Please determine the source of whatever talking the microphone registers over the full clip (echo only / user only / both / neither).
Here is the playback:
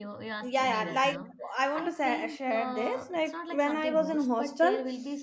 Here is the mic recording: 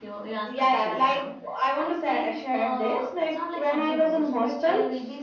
echo only